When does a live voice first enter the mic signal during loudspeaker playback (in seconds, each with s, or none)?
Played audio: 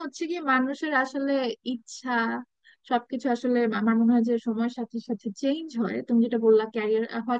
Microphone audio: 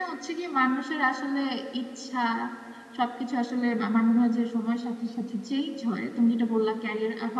none